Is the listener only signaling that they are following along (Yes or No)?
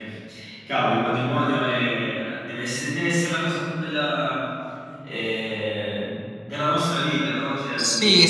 No